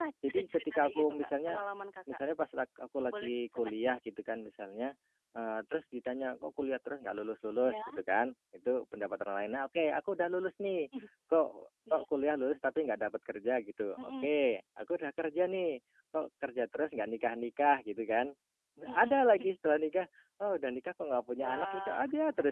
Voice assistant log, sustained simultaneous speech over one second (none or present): present